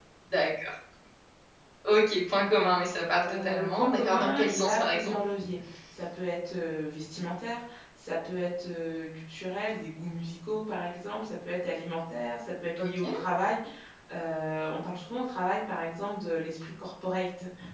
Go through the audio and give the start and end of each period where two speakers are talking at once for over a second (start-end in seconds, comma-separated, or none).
3.2-5.2